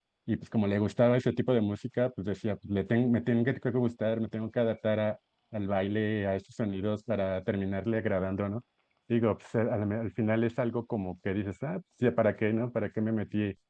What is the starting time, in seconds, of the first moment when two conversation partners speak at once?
none

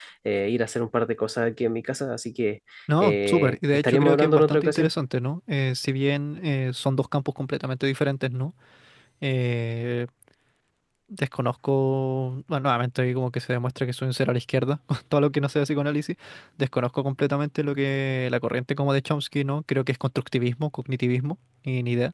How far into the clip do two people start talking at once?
3 s

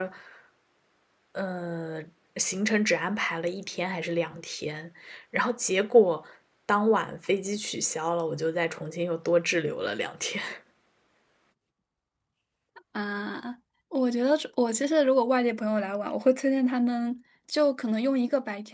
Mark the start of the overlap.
none

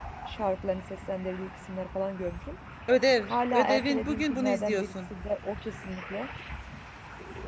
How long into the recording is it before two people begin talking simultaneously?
3 s

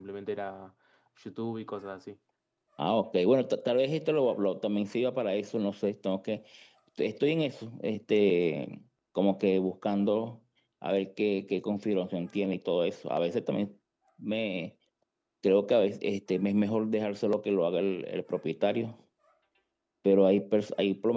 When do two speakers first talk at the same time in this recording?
none

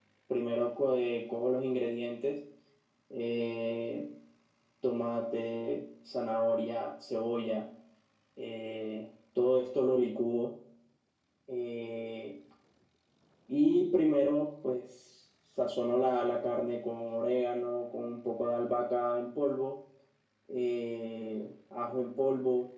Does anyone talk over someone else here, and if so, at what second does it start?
none

